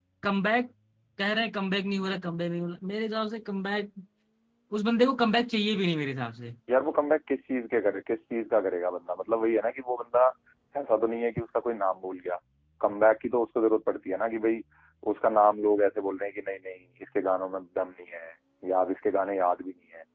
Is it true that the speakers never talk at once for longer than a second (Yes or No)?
Yes